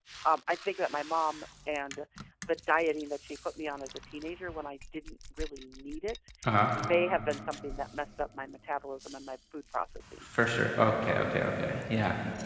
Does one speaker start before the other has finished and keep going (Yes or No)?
No